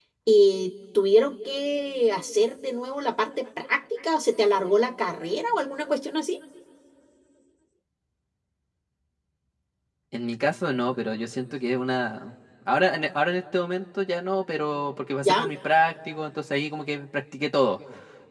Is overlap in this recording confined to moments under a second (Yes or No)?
Yes